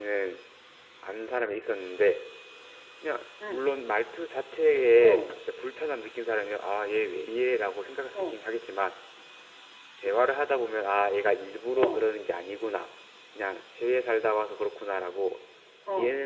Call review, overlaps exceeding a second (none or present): none